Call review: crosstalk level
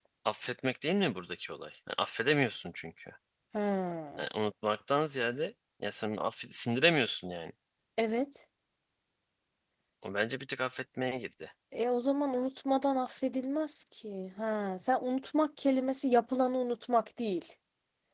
none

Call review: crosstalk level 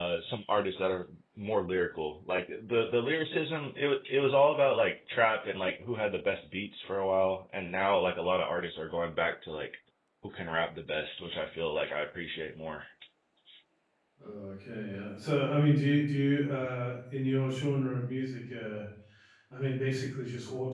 none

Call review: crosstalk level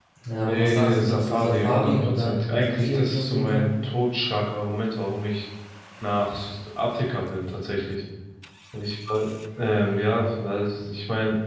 present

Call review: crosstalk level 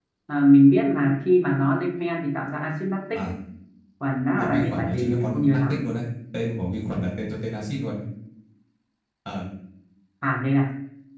present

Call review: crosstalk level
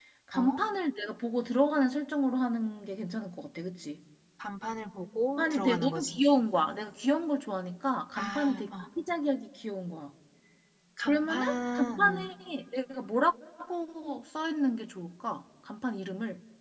present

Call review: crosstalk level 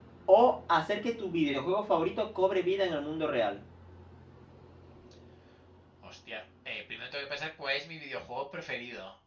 none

